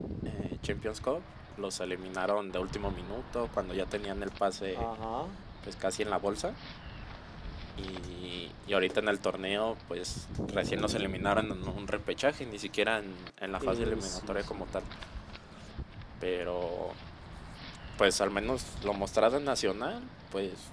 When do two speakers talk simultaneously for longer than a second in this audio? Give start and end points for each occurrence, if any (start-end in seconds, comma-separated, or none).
13.6-14.8